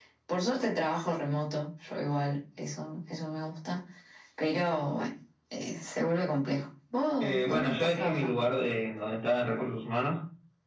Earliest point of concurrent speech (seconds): 7 s

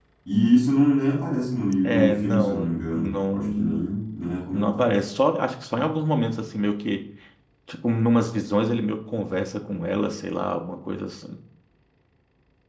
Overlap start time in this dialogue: 2 s

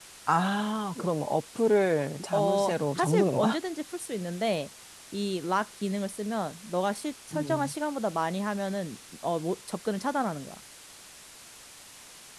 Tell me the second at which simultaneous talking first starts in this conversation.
2 s

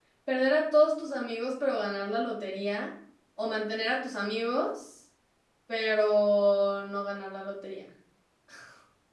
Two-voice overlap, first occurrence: none

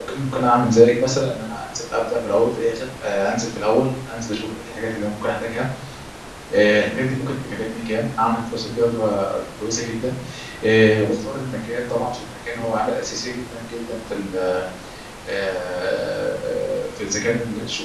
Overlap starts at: none

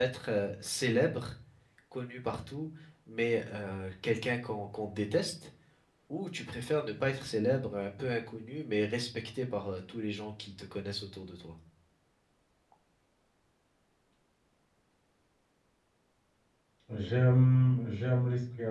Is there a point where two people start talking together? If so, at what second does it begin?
none

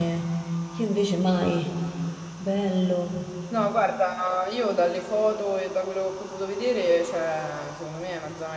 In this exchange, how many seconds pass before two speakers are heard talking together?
none

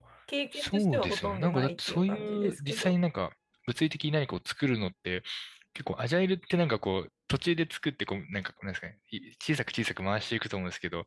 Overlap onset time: 1 s

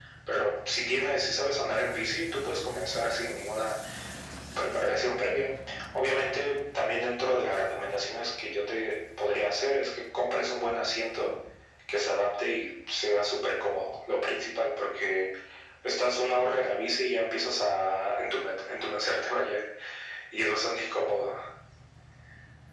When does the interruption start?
none

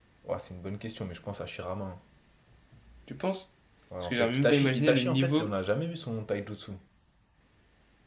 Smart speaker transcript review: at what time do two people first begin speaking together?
4 s

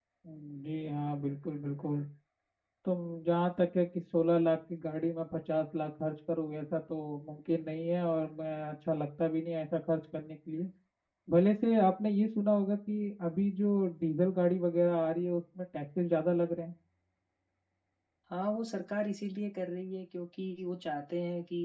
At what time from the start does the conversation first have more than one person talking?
none

